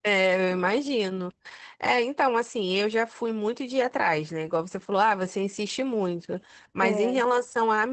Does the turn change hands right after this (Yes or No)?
No